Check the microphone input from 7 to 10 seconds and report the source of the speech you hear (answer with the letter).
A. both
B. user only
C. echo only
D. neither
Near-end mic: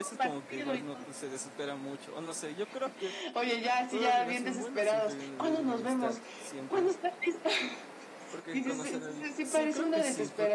A